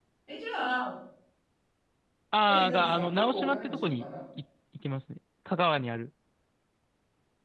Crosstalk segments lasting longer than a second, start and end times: 2.5-4.1

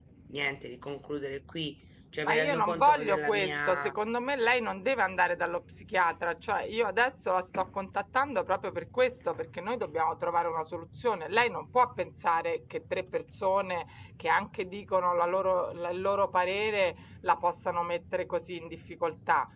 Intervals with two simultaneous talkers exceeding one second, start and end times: 2.3-3.9

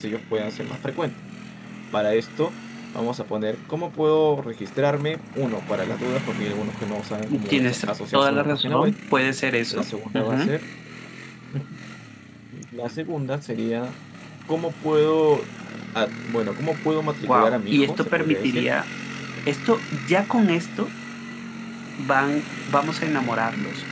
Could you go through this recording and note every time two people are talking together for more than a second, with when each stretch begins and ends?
7.5-9.0, 17.3-18.7

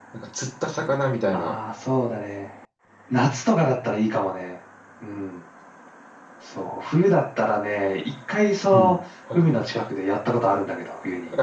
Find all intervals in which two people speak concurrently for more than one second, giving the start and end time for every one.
none

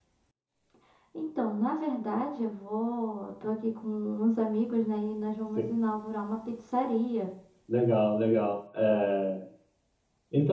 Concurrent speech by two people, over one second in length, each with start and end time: none

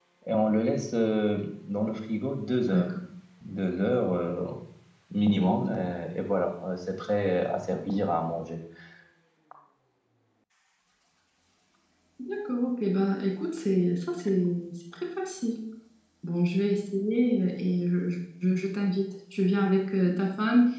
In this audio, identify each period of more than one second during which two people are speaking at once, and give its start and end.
none

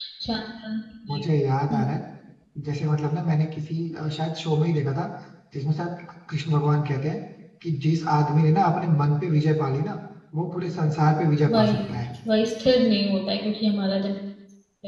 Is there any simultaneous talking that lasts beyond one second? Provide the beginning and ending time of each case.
none

